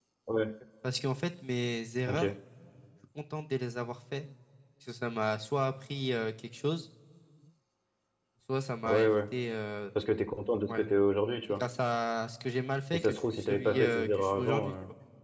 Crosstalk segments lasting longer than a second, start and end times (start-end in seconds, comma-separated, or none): 12.9-14.7